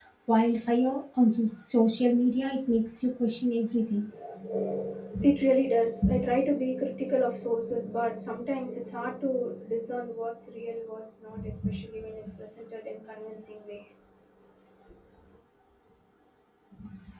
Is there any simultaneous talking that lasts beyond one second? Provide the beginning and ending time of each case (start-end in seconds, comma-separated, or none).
none